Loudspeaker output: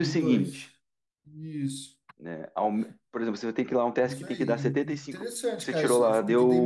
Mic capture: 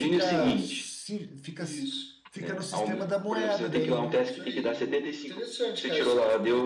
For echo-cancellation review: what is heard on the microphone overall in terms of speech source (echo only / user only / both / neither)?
both